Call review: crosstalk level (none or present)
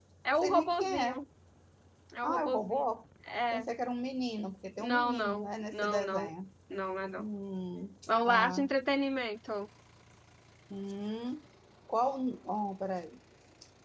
present